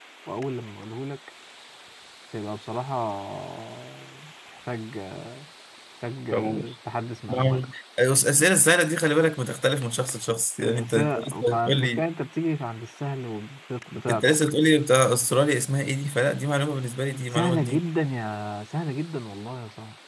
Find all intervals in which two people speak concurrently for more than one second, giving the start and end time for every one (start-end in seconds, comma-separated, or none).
10.8-12.0